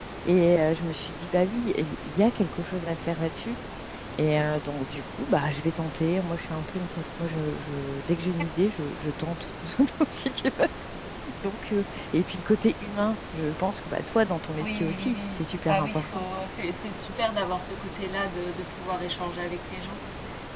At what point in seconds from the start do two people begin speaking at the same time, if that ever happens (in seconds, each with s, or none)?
14.6 s